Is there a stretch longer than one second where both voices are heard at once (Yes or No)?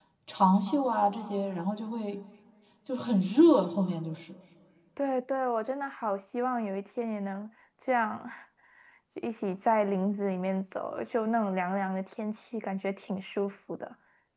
No